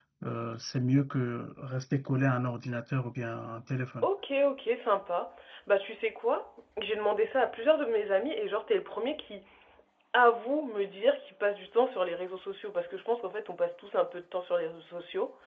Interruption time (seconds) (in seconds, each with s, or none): none